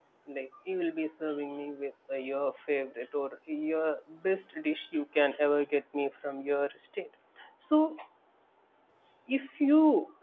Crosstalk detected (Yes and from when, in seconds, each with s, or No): No